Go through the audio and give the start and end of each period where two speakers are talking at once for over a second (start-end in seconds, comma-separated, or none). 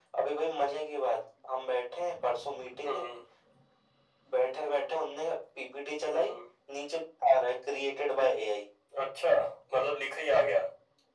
none